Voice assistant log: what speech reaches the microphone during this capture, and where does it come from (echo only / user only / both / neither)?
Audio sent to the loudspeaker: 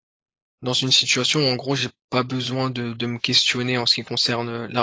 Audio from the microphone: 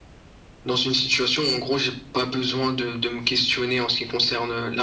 echo only